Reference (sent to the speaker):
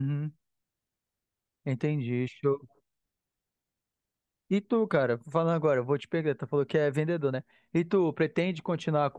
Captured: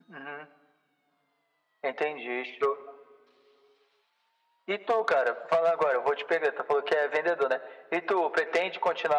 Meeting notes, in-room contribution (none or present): none